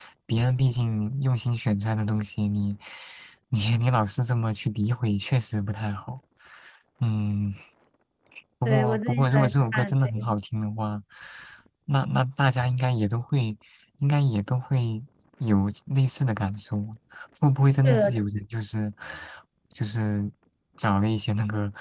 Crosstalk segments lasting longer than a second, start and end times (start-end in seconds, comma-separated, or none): 8.7-10.3